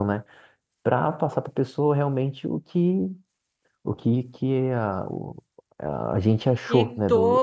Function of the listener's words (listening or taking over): taking over